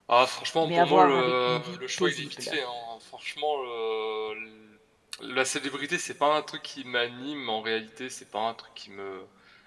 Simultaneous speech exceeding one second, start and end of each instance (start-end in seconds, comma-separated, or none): 0.6-2.6